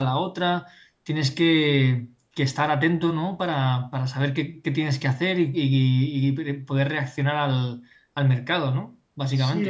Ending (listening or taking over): taking over